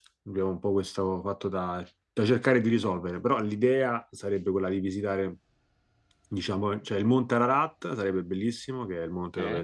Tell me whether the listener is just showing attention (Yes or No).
Yes